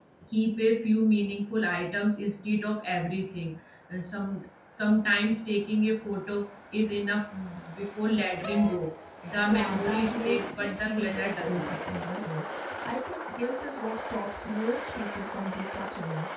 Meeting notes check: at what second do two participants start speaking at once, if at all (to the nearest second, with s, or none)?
9 s